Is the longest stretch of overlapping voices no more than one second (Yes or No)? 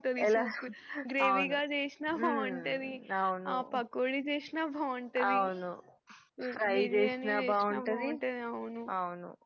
No